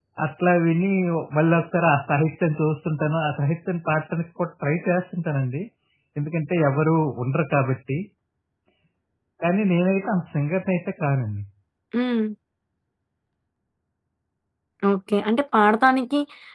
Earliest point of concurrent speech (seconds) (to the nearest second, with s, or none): none